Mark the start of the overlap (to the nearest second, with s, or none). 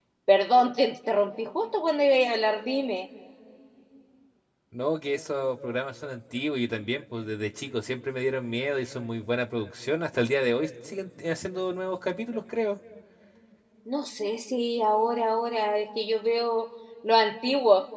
none